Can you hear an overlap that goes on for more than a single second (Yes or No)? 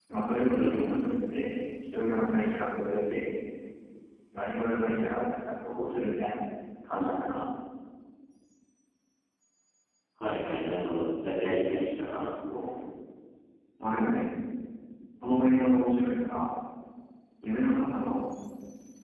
No